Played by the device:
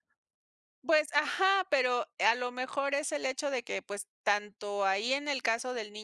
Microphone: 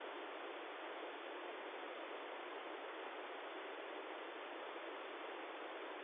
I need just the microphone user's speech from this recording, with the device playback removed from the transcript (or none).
none